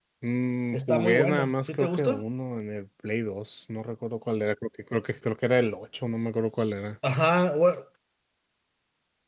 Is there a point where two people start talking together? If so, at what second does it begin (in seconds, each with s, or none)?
0.7 s